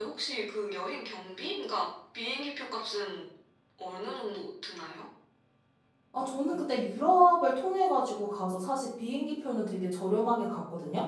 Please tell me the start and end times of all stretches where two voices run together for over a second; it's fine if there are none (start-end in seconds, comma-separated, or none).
none